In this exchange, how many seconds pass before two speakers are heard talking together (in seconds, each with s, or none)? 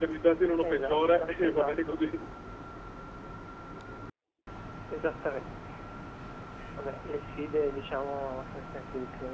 0.7 s